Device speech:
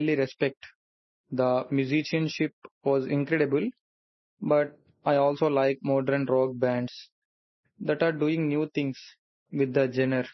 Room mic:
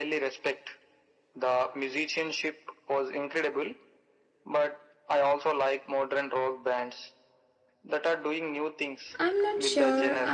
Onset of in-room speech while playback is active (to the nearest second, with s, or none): 9 s